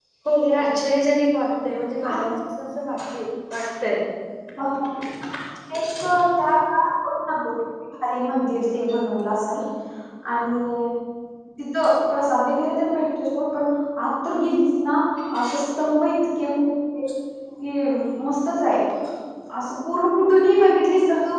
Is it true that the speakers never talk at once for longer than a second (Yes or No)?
Yes